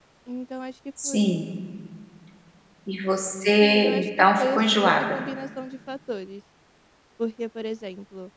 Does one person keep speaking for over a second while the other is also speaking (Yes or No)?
Yes